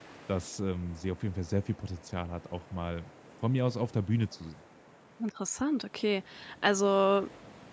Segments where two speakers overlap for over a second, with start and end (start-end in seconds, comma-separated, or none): none